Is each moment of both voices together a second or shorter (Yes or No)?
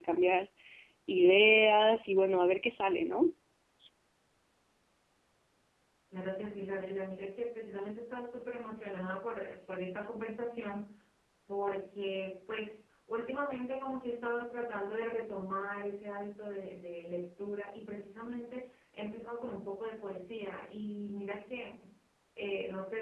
Yes